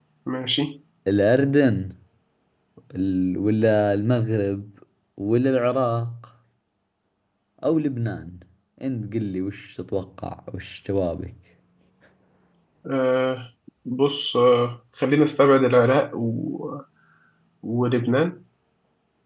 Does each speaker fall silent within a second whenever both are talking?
Yes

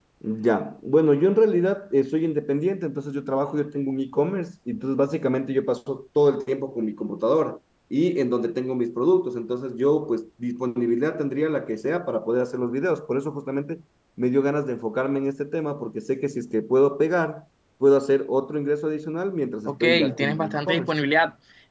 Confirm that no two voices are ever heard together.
No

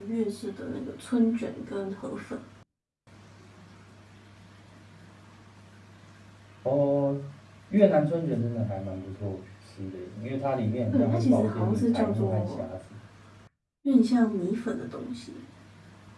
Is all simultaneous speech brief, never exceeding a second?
No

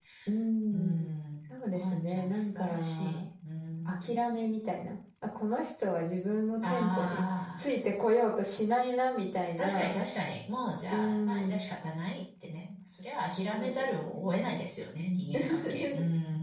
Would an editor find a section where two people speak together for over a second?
Yes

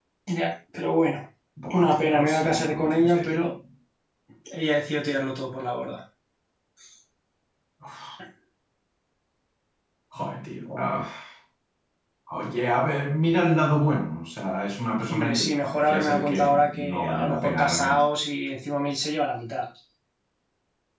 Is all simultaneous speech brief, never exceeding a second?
No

